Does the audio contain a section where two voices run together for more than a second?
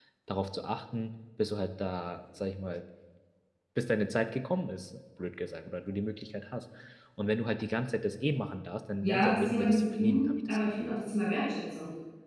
Yes, from 9.0 s

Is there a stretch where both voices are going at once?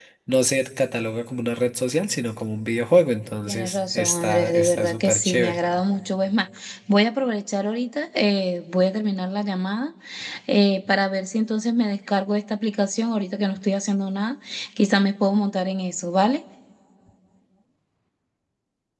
Yes, from 3.5 s

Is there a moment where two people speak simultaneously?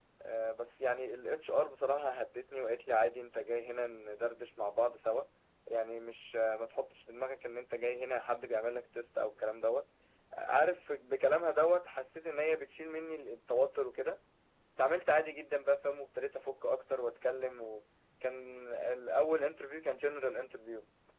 No

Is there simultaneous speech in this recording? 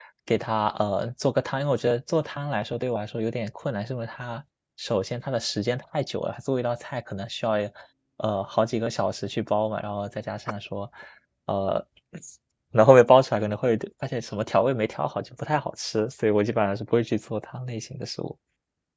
No

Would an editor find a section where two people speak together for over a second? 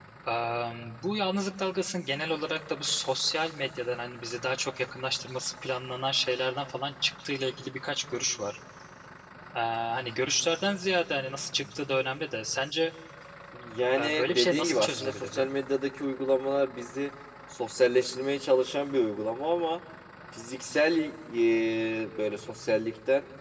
Yes, from 14.0 s

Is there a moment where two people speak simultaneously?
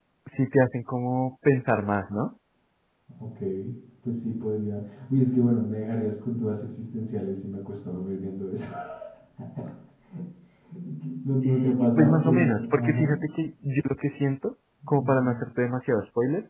Yes, from 11.4 s

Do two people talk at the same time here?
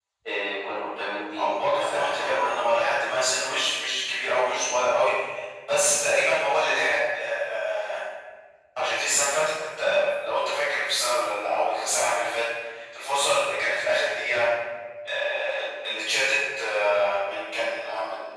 Yes, from 1.4 s

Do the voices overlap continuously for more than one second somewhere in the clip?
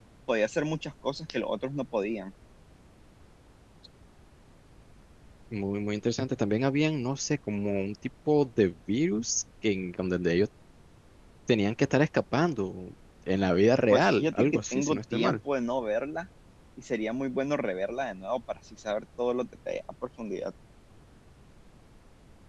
Yes, from 13.9 s

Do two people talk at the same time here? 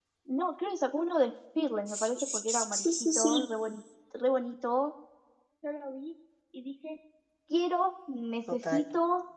Yes, from 1.9 s

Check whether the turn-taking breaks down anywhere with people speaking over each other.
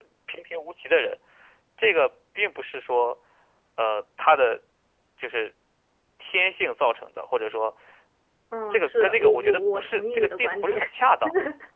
Yes, from 8.7 s

